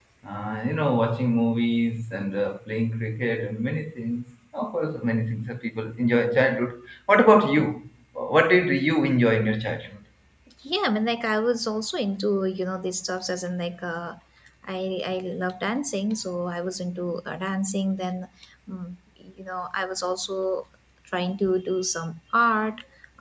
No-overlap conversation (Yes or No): Yes